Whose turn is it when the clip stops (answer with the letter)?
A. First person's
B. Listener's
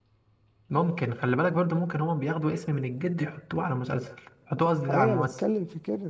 B